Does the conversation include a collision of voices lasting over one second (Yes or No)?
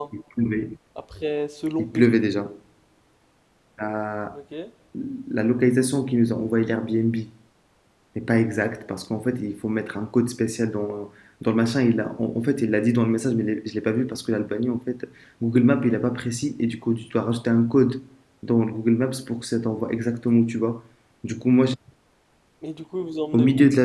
No